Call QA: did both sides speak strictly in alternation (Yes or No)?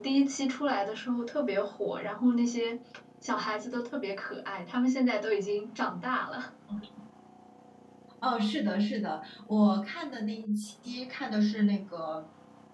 Yes